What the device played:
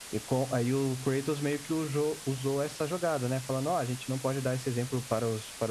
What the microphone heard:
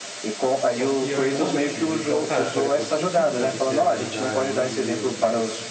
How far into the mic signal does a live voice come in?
0.7 s

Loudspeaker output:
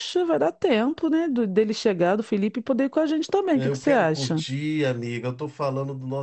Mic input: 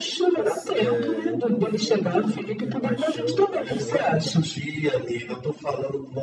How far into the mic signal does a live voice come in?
0.3 s

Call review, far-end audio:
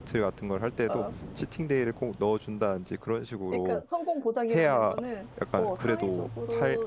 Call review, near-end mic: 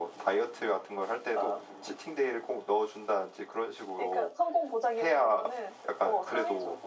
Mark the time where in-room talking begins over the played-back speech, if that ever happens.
none

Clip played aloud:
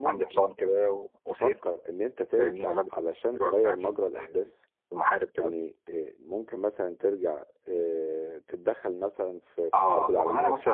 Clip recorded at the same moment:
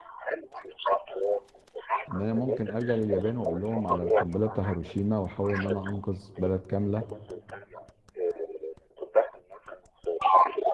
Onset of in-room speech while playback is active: 2.1 s

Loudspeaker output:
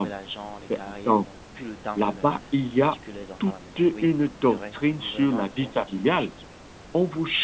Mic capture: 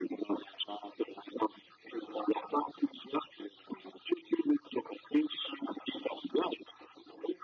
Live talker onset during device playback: none

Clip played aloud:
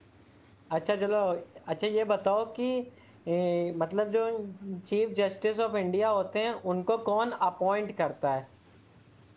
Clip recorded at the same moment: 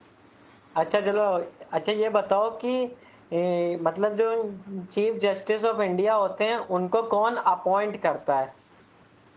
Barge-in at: none

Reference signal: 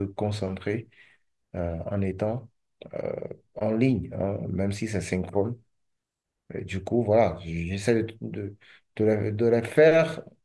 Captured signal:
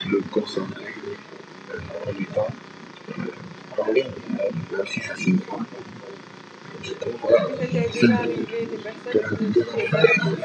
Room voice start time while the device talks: 7.3 s

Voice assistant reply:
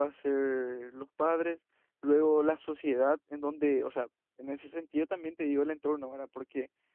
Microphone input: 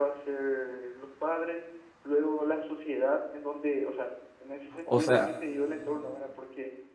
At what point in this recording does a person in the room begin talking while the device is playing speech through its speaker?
4.8 s

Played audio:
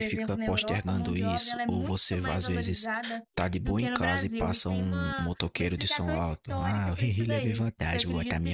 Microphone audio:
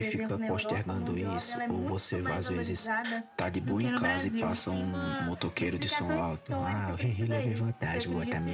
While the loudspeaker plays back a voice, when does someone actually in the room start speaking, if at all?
none

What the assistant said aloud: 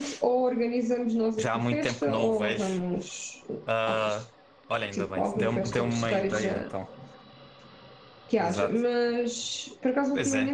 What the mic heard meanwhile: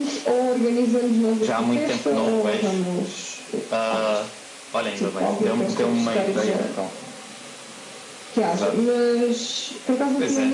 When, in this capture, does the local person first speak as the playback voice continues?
none

